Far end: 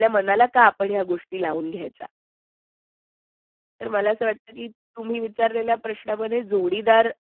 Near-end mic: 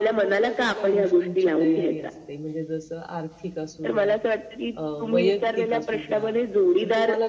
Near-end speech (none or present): present